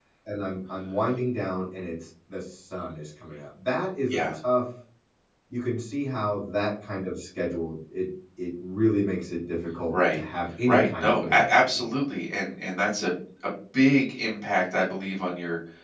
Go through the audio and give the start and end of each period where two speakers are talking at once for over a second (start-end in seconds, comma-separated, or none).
10.7-11.9